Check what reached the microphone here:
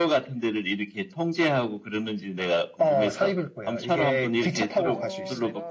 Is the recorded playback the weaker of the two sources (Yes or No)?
No